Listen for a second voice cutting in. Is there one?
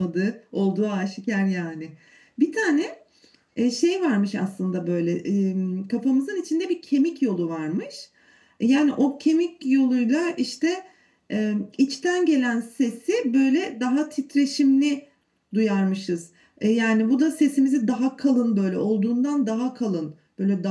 No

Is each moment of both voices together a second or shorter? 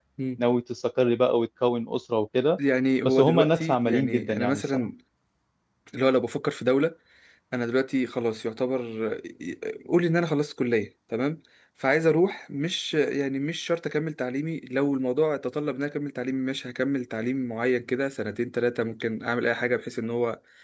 No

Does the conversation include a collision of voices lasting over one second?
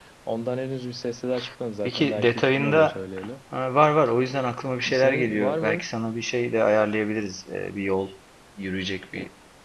Yes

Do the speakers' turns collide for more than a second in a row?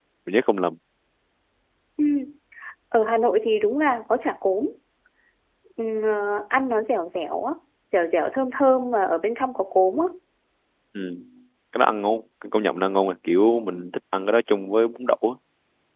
No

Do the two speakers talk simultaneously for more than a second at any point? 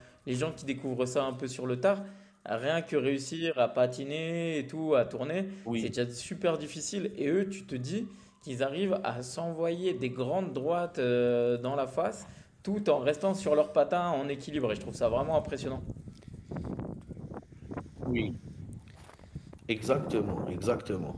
No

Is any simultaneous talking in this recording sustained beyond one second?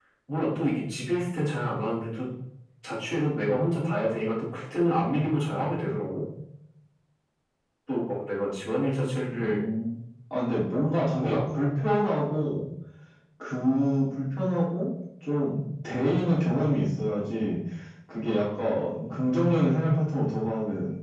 No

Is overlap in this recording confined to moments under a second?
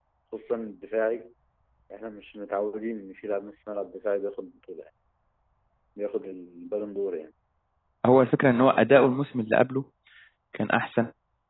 Yes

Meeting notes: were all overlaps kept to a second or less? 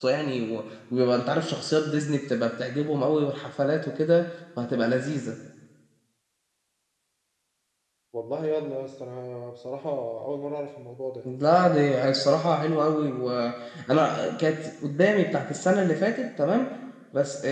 Yes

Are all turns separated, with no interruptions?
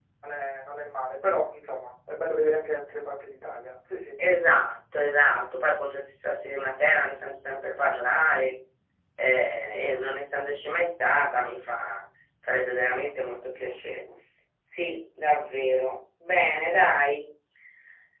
Yes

